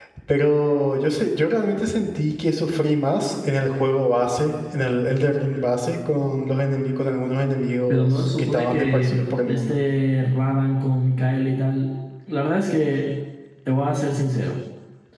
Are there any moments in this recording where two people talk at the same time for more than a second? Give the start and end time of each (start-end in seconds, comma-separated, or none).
7.9-9.8